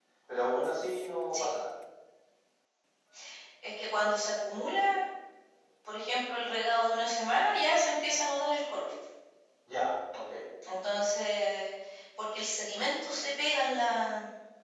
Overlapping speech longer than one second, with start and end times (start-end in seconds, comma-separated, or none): none